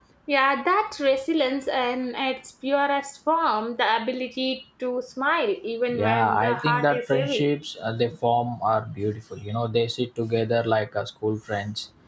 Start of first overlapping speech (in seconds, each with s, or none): 5.9 s